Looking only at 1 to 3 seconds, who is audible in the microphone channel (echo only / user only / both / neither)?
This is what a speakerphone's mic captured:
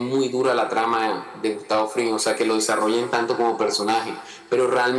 echo only